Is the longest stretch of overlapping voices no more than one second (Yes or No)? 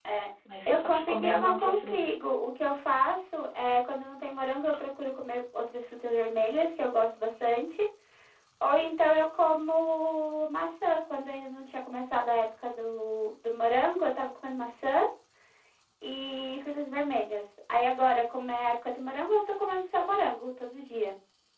No